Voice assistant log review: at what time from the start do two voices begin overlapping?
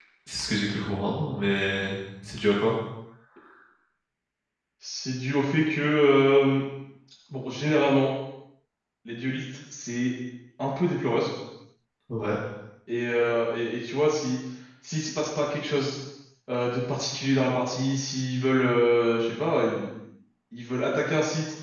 none

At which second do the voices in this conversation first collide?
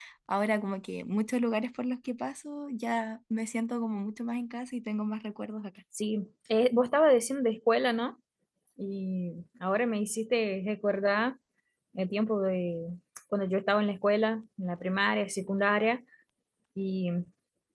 none

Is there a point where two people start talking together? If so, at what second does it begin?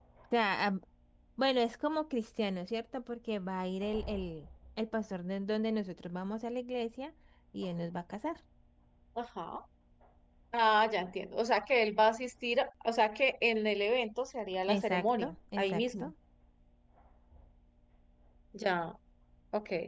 14.7 s

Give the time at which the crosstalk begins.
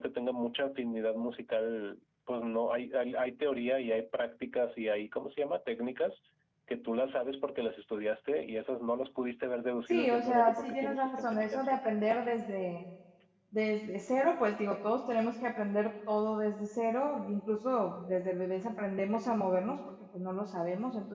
9.9 s

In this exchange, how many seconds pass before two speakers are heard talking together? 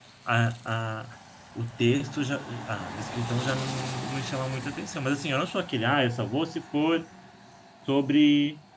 none

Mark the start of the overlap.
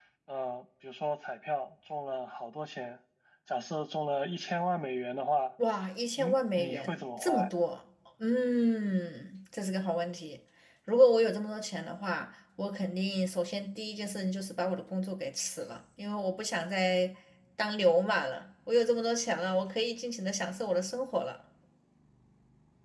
6.2 s

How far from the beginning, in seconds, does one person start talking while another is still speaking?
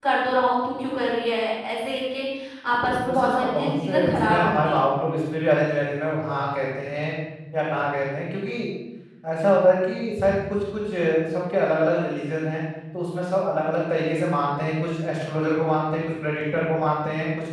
3.1 s

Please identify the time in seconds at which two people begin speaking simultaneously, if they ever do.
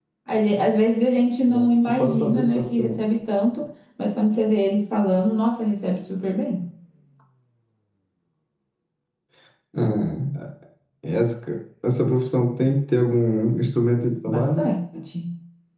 1.5 s

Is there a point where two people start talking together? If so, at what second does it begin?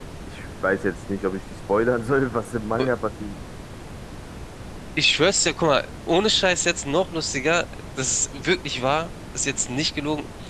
none

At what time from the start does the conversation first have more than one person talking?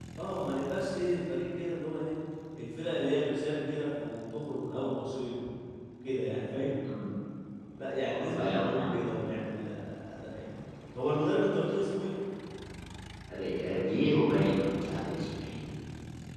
8.0 s

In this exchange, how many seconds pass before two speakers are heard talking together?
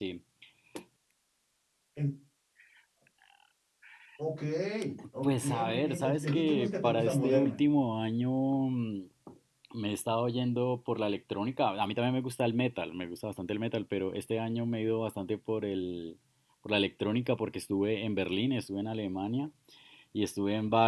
5.2 s

